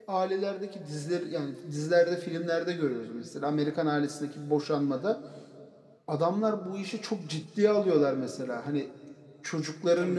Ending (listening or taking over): taking over